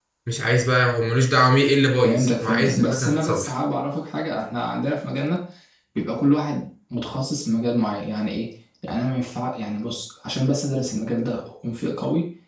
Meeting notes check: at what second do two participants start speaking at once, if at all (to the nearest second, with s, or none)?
2 s